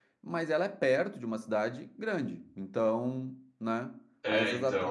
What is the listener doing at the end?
listening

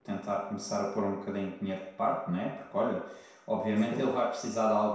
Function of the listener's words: listening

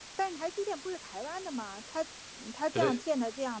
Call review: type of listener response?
listening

